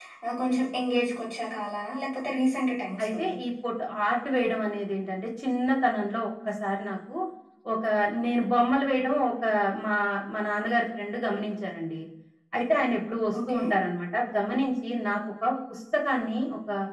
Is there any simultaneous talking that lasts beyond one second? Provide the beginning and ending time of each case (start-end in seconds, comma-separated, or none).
none